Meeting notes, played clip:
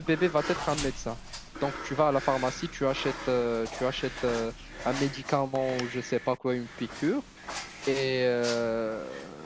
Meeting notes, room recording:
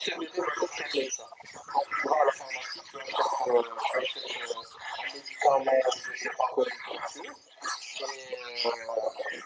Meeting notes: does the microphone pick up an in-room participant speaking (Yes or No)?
No